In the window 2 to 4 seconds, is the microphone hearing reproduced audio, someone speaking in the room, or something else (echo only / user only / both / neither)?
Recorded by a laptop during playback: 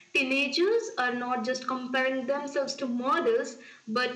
echo only